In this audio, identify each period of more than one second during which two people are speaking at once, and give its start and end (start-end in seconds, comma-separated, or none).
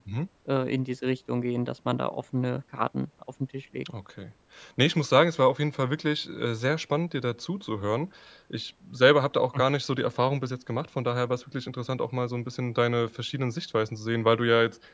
none